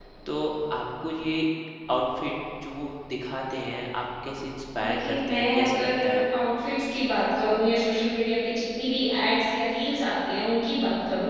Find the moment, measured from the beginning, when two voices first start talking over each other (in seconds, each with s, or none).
4.8 s